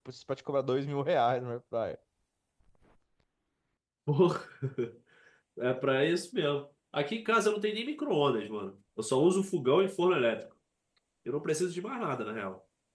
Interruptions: none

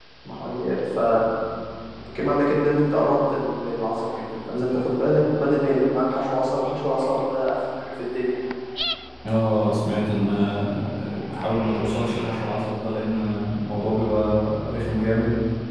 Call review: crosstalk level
none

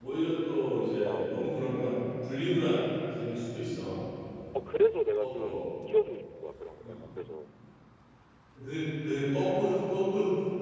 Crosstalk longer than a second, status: none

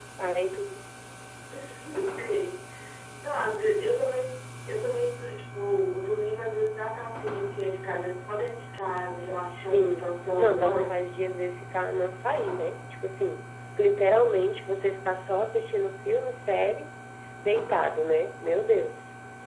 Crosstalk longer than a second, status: present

